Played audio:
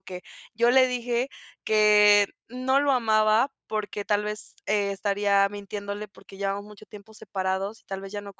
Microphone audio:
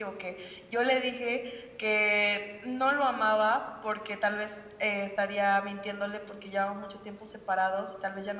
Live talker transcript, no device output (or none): none